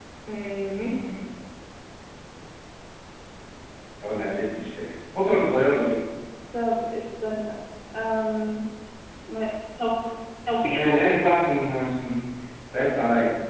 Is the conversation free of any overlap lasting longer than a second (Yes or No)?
Yes